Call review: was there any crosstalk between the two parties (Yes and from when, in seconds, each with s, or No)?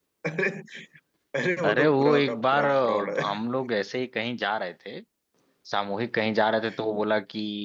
Yes, from 1.6 s